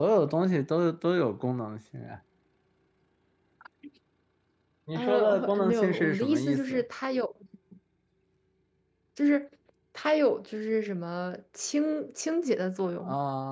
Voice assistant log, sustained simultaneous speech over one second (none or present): present